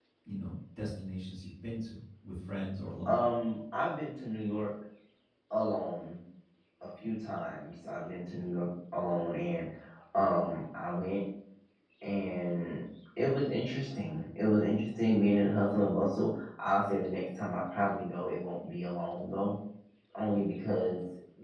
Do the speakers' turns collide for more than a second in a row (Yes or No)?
No